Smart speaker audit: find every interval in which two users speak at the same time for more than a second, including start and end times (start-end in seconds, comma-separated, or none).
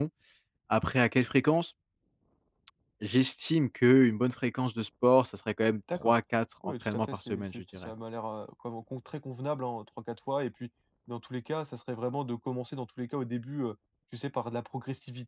6.6-7.9